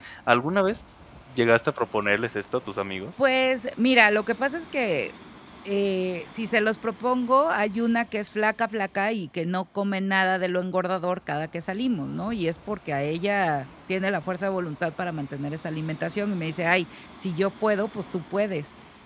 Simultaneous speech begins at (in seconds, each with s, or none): none